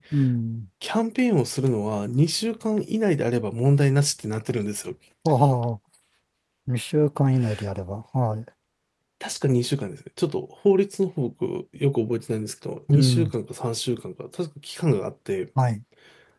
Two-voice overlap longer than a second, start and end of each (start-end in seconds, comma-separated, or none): none